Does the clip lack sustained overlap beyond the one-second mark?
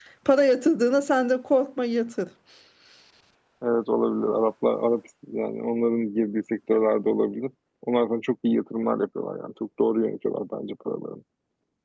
Yes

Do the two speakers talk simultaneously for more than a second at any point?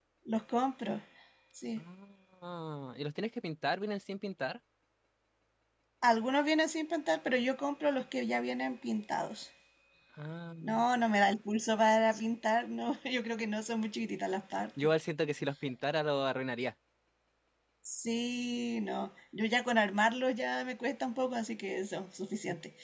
No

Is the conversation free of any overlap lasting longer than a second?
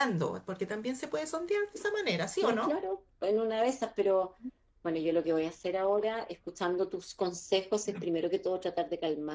Yes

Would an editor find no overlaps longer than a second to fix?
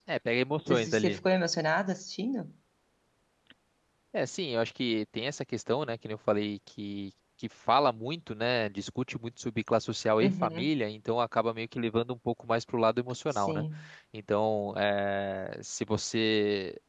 Yes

